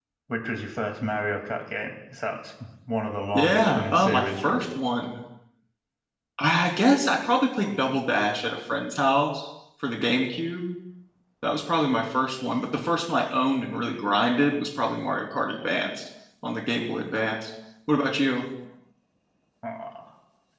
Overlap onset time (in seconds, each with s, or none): 3.3 s